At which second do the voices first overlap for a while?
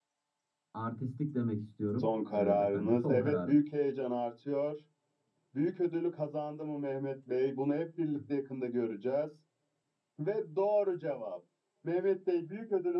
2.0 s

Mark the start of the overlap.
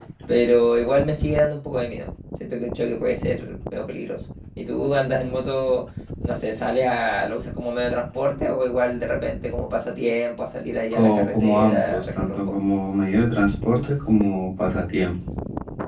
10.9 s

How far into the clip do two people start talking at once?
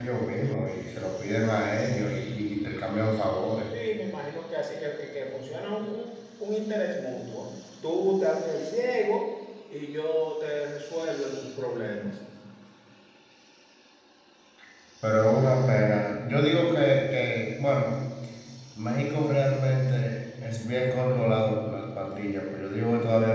none

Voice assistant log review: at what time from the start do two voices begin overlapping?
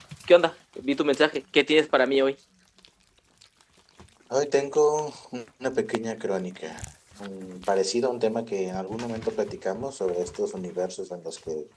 none

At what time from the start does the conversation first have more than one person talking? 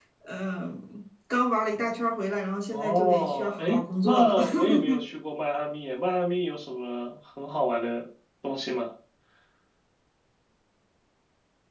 2.7 s

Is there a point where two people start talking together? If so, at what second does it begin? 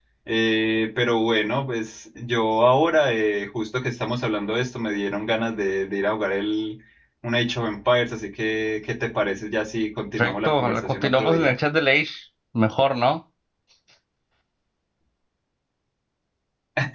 10.2 s

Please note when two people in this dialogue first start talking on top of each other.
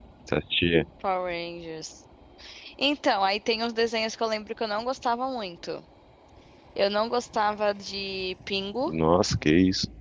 none

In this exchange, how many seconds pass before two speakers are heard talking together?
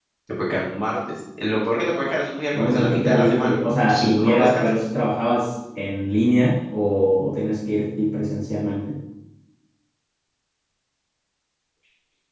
2.5 s

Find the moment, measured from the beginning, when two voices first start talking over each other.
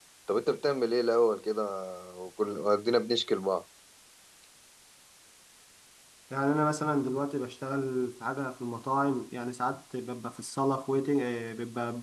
none

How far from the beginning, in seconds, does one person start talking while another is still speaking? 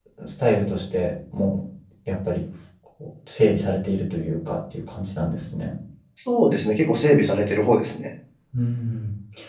none

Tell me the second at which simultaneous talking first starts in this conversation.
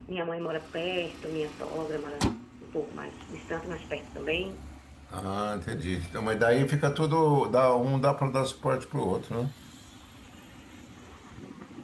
none

